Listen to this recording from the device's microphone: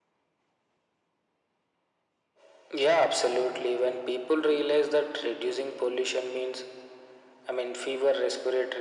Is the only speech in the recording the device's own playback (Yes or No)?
Yes